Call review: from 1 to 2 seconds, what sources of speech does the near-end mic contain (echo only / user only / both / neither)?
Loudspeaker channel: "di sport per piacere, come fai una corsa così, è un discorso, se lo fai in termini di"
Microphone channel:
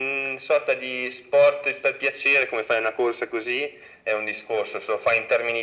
echo only